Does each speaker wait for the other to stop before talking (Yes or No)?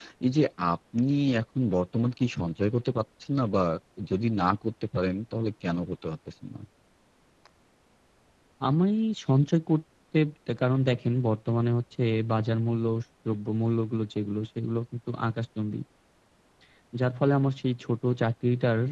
Yes